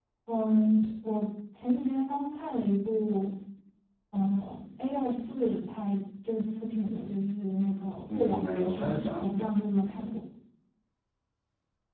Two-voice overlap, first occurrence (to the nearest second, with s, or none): 8 s